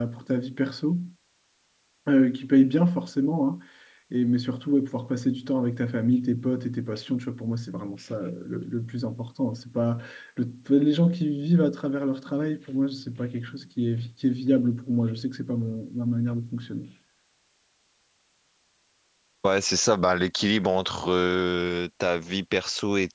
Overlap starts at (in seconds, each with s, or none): none